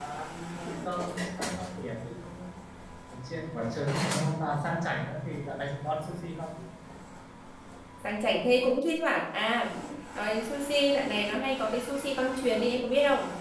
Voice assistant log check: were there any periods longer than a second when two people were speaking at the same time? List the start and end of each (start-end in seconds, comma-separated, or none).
none